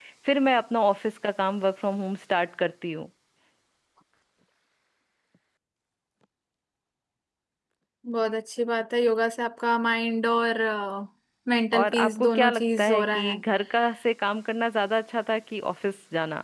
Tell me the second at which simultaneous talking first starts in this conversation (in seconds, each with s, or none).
11.7 s